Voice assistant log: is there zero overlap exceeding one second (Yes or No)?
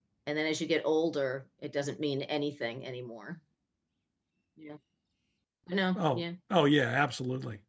Yes